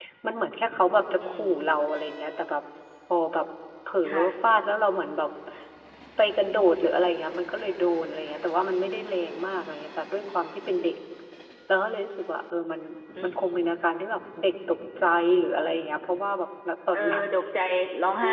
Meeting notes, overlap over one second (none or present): none